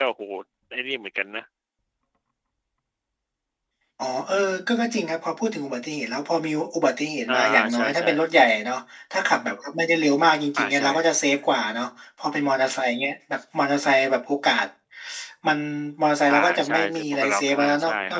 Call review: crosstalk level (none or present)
present